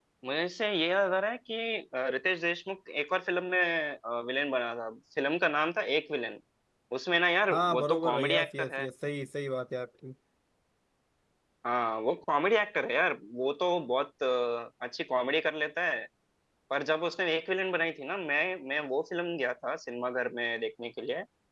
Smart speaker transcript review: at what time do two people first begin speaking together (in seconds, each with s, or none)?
7.5 s